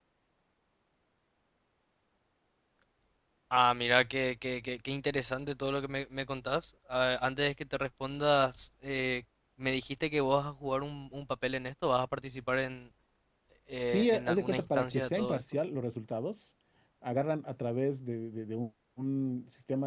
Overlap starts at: 13.9 s

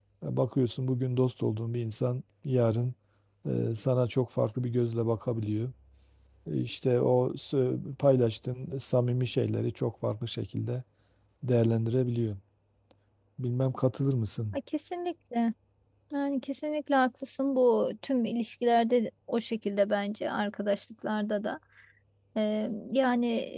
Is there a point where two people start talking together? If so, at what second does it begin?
none

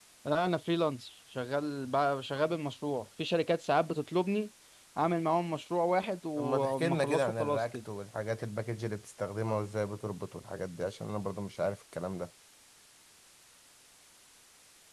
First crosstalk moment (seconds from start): 6.4 s

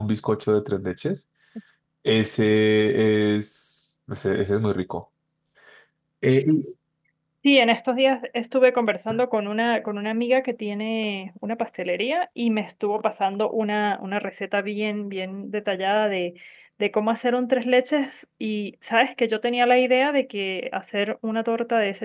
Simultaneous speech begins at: none

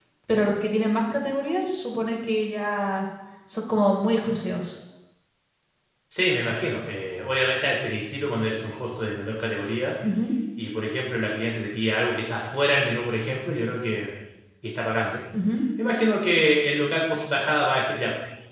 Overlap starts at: none

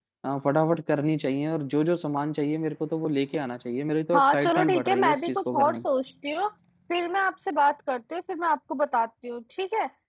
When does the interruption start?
4.1 s

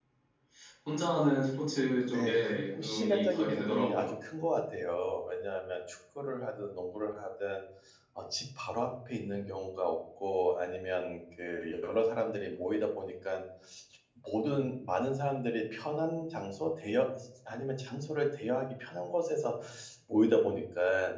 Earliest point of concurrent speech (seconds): 2.1 s

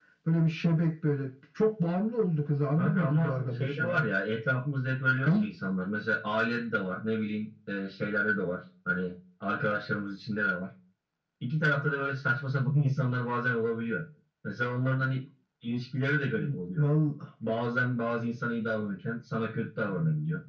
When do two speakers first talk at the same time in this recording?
2.8 s

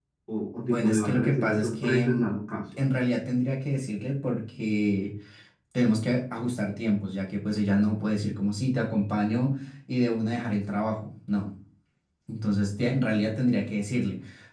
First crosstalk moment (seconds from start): 0.6 s

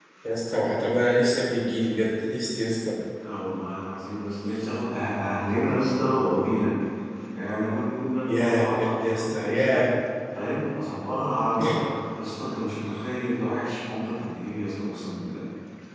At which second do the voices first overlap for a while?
8.3 s

